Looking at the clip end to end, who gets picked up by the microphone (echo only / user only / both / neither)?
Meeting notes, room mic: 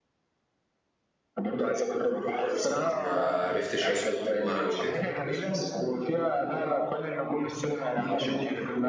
both